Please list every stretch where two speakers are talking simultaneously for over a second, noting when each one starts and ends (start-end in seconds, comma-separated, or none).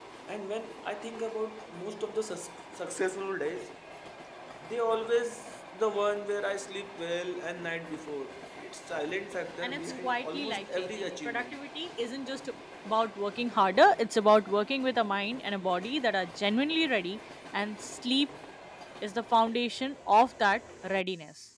9.6-11.6